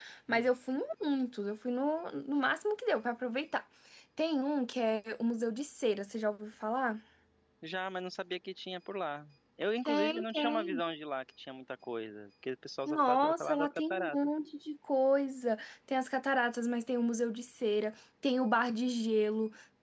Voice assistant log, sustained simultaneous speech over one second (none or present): present